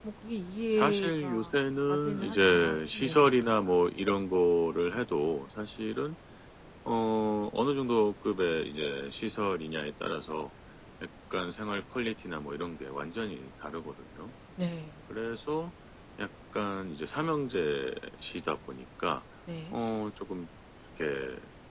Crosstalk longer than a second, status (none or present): present